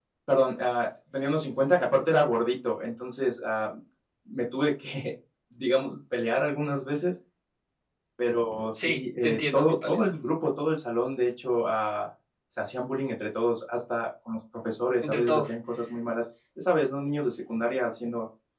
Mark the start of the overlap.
8.7 s

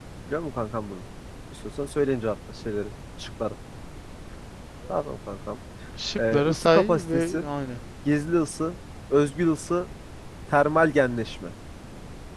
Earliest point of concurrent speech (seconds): 6.2 s

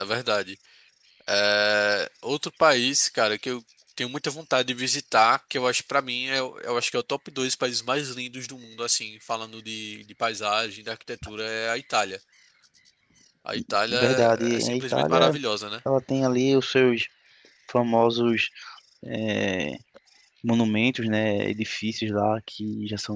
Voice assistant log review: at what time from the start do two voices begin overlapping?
13.9 s

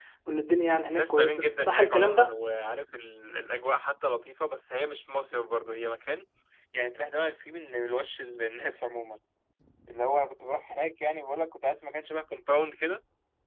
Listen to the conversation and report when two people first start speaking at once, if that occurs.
0.9 s

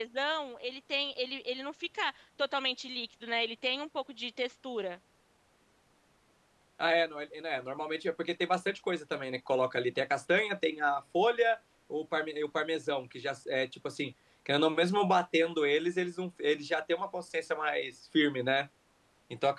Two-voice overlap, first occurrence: none

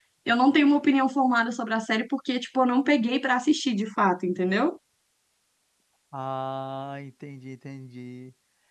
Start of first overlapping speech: none

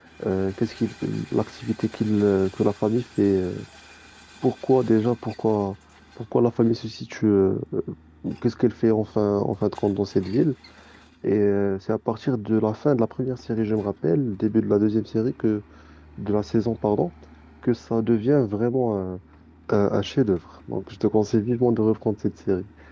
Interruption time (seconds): none

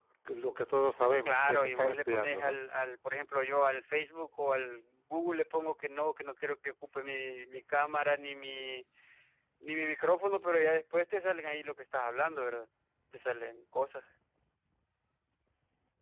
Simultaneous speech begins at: 1.2 s

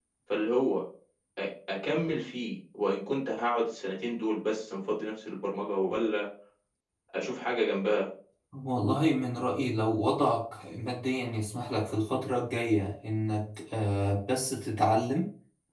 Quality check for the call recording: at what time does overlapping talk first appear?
none

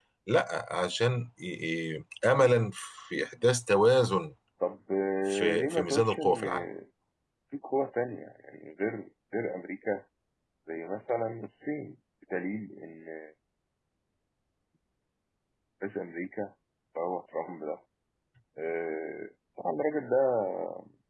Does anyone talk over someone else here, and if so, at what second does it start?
5.3 s

